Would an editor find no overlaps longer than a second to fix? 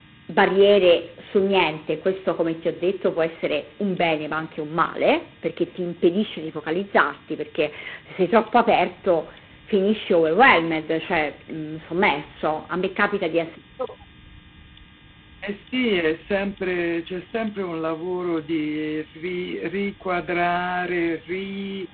Yes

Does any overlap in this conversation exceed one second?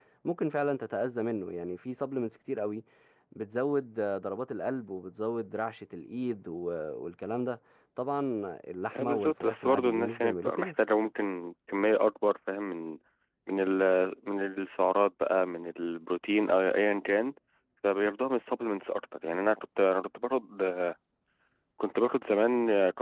Yes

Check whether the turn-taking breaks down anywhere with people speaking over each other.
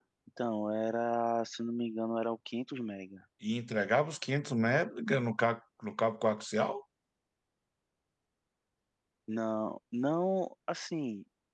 No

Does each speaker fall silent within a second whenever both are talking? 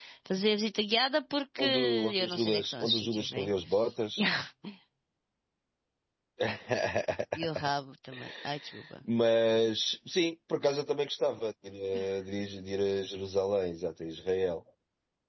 No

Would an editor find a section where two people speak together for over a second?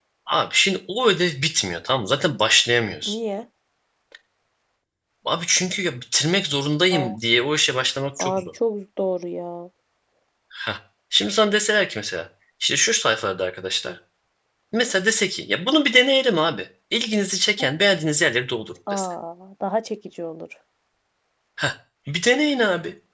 No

